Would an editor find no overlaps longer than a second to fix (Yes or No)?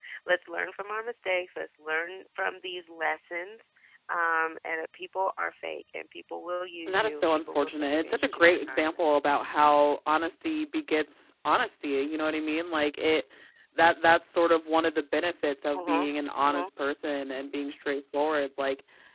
No